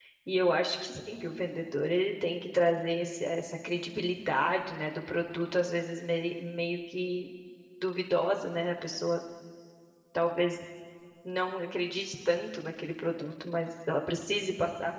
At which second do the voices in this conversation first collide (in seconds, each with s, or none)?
none